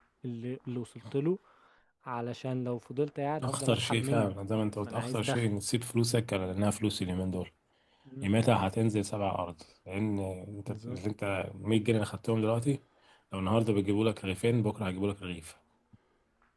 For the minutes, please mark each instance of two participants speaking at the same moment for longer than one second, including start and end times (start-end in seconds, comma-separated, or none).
3.4-5.5